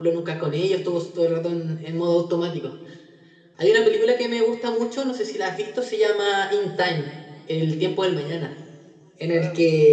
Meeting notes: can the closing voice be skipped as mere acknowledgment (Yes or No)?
Yes